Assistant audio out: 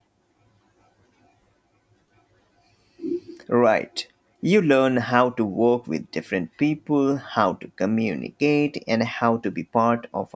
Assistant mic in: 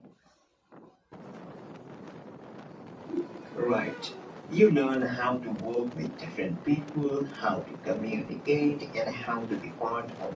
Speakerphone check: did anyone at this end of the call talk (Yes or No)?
No